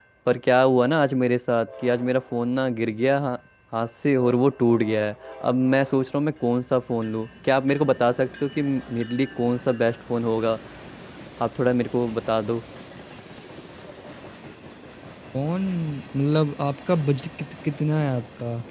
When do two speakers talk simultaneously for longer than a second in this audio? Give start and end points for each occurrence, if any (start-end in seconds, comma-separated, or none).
none